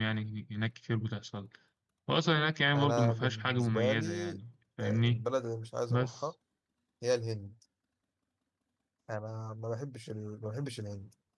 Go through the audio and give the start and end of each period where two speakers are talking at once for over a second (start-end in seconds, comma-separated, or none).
2.8-4.4